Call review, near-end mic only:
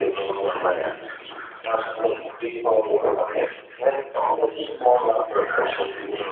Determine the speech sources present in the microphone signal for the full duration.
echo only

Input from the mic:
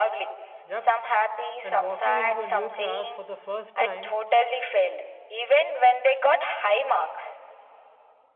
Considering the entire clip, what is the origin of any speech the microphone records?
both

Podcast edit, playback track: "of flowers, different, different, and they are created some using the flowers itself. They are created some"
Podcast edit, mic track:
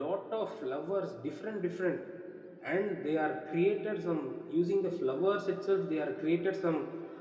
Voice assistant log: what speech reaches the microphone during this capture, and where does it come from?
echo only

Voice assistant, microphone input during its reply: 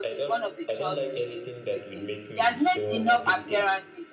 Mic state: both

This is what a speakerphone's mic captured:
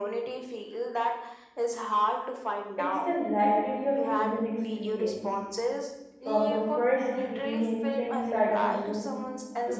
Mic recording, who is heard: both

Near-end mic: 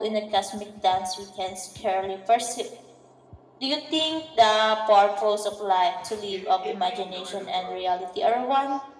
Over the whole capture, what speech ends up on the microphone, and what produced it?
both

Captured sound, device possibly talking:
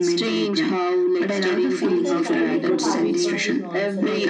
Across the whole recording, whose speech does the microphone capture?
both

